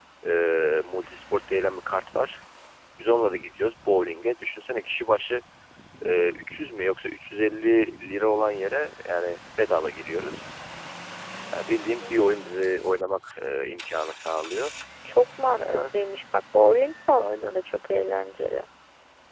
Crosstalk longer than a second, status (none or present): none